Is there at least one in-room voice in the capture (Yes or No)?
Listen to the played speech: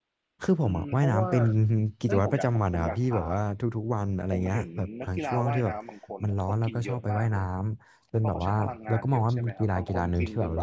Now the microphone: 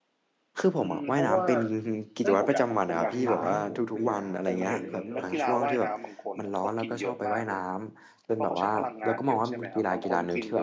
Yes